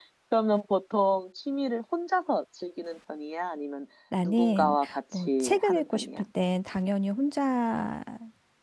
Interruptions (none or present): present